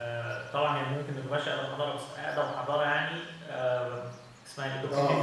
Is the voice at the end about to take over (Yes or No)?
Yes